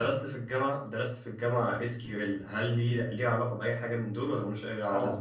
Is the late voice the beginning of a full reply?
Yes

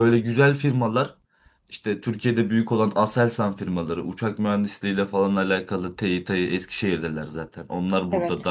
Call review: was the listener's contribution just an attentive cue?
Yes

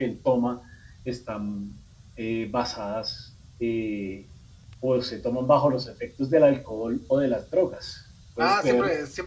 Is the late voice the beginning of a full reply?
Yes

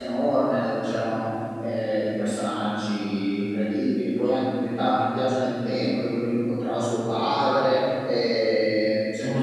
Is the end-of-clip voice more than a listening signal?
Yes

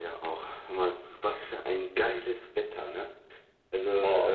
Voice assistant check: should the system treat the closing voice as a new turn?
No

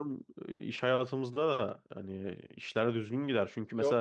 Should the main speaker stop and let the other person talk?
No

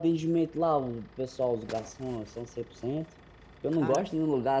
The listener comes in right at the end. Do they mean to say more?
No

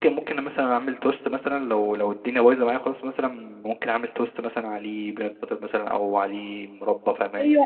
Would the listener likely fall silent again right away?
No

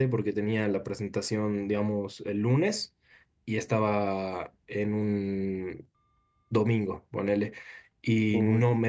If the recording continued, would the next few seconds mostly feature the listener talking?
No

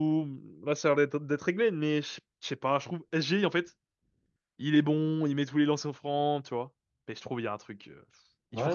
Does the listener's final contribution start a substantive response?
Yes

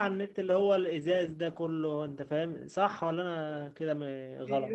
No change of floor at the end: No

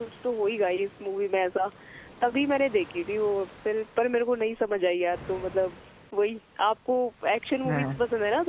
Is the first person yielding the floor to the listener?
No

